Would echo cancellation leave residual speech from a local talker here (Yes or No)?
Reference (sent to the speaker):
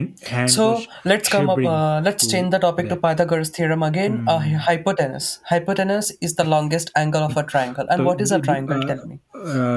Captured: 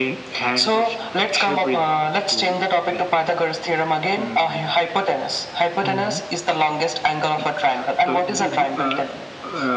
Yes